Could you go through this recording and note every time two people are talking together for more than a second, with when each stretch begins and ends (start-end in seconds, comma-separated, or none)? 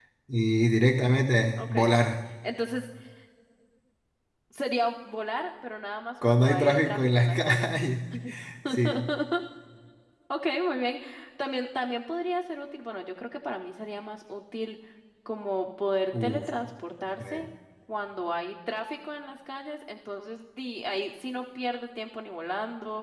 6.2-7.7